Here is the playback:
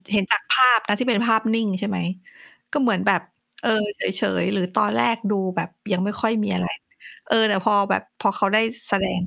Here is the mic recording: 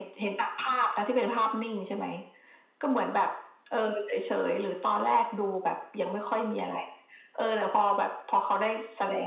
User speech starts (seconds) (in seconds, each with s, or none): none